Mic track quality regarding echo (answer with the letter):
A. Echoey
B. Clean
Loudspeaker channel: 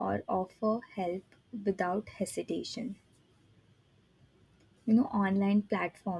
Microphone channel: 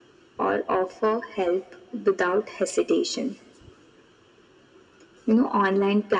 A